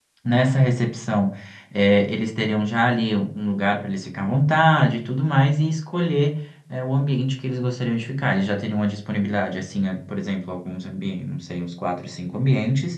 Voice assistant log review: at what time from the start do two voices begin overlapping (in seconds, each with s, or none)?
none